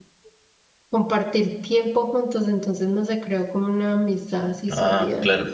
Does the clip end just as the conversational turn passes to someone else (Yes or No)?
Yes